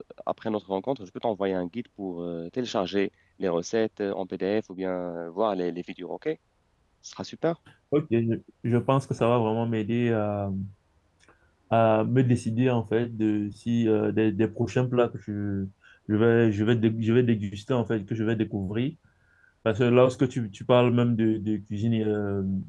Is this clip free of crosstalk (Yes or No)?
Yes